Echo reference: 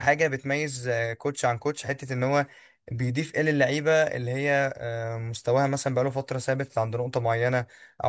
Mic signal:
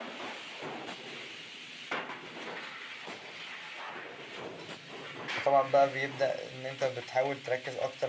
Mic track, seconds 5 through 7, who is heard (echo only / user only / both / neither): user only